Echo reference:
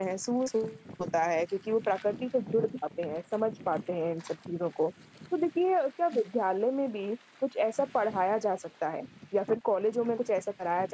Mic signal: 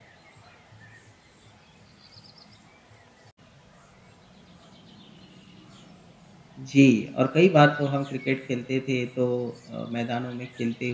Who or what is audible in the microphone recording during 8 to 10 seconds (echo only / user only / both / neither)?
user only